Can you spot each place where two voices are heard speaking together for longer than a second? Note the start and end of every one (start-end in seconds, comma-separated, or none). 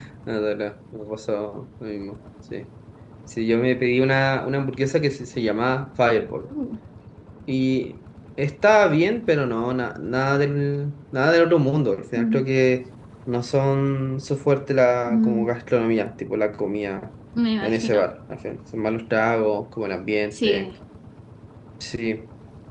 none